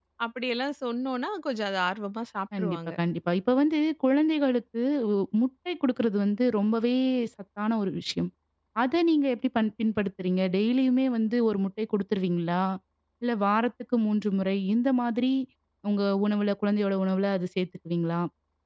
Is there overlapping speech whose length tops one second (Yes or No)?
No